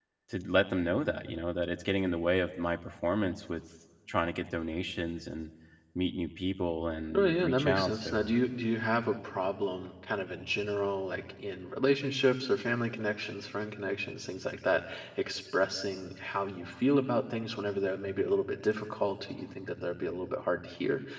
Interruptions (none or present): present